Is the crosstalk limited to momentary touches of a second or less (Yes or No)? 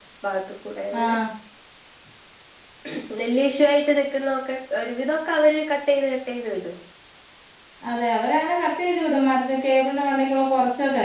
Yes